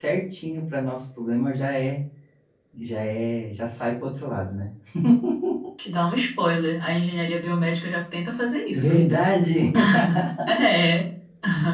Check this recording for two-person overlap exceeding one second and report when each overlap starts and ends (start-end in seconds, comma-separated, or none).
none